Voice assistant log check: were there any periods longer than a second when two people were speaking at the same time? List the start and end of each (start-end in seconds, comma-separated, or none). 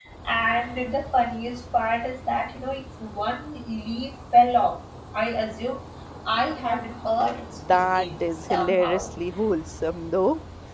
7.7-9.2